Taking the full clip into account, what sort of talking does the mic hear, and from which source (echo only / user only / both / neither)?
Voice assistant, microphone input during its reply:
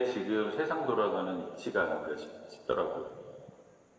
echo only